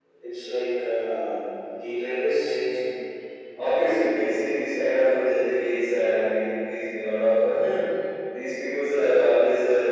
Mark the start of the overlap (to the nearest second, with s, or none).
none